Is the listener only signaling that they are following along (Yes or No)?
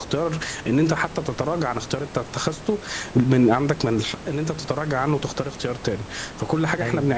Yes